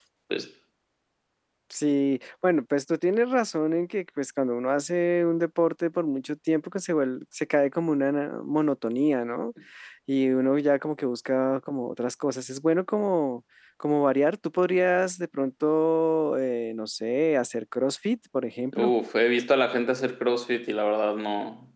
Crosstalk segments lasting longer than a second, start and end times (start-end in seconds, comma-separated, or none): none